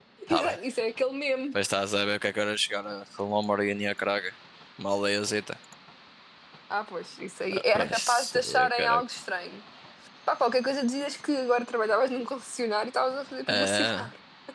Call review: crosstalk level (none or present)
present